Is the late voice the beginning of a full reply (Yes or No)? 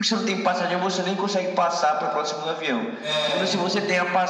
No